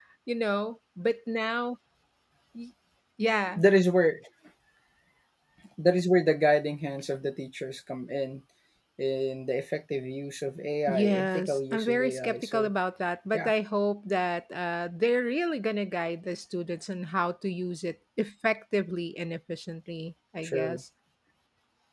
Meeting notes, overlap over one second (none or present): present